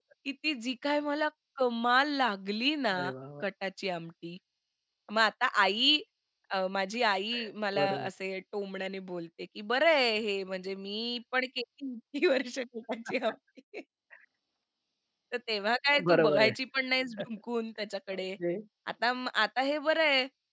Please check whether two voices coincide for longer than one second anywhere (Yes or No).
No